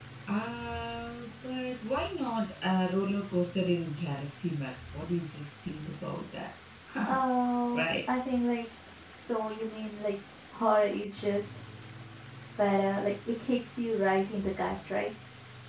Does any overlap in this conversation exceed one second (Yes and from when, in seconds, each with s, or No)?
No